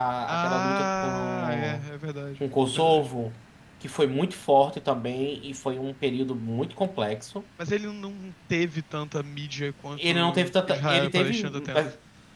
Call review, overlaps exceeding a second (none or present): present